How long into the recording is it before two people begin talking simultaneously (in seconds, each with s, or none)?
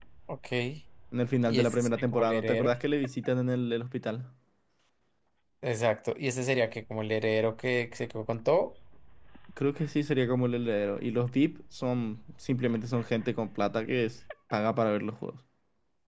1.5 s